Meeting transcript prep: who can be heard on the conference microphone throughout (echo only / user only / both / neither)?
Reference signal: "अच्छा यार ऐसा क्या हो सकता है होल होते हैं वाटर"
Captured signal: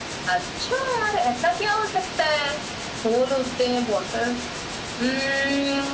echo only